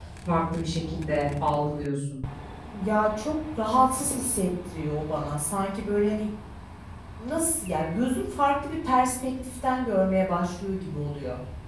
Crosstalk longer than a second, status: none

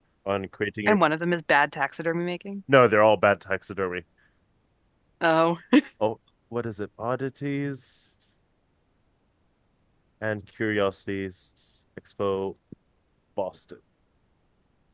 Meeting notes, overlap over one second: none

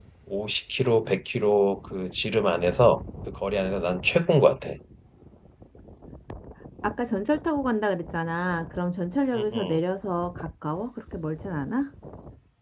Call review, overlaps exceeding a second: none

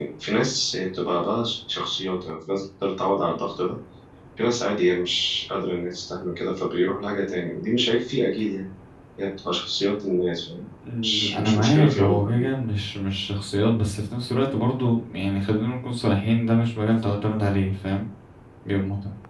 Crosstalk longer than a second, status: present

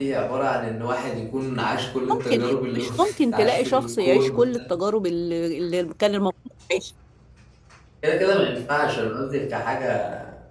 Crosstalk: present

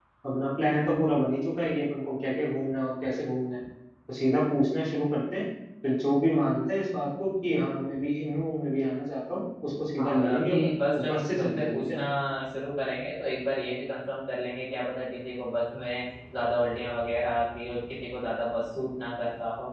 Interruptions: present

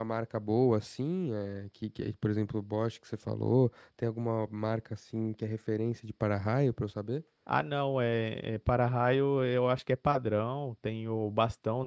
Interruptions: none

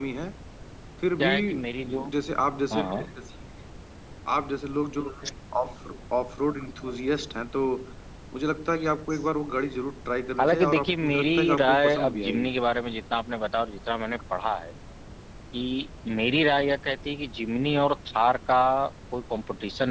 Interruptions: present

